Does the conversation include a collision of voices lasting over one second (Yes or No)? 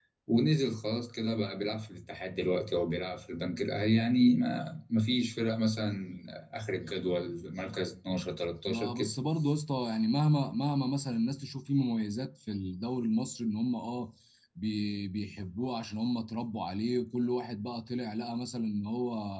No